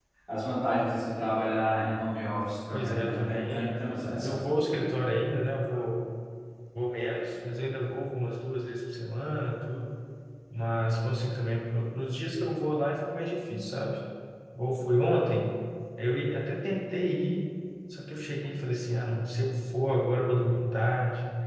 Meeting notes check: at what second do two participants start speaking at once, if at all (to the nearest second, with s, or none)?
3 s